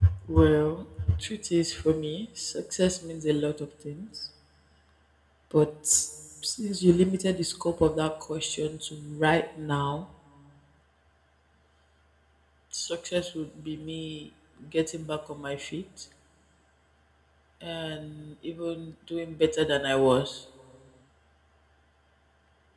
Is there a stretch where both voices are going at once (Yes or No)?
No